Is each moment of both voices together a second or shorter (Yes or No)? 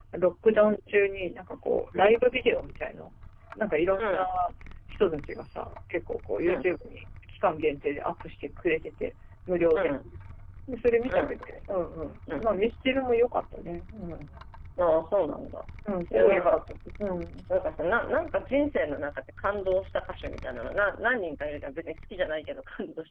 Yes